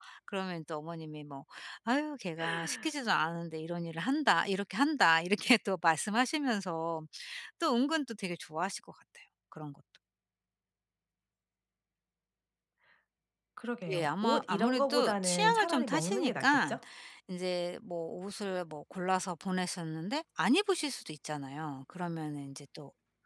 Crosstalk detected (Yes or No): Yes